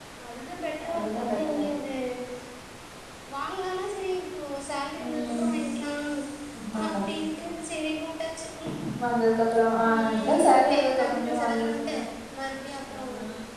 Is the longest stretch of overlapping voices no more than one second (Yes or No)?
No